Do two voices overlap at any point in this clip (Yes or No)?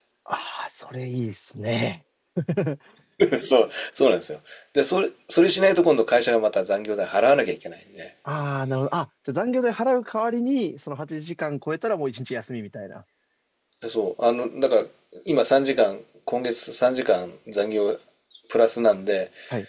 No